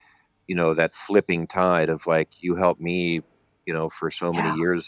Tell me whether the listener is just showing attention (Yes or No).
Yes